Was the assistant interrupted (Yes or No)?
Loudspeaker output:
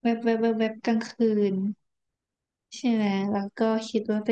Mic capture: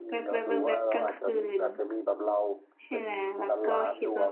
Yes